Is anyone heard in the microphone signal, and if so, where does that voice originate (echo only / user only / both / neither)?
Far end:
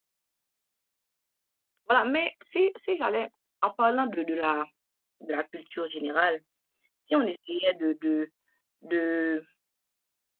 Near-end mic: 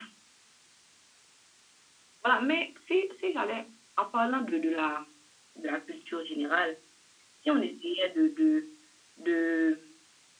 echo only